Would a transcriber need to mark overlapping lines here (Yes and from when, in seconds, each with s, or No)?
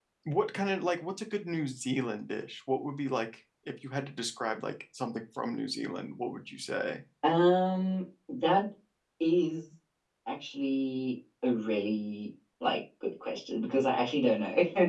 No